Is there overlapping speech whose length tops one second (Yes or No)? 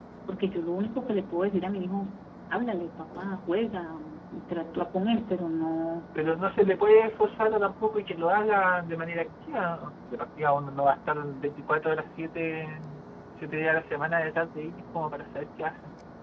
No